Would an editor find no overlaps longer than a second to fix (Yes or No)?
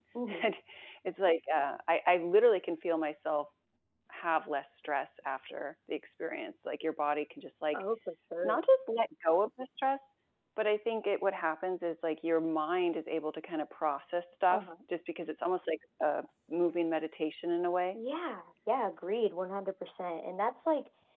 Yes